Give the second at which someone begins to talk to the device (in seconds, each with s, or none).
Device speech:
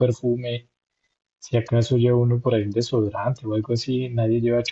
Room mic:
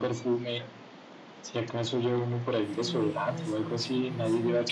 2.7 s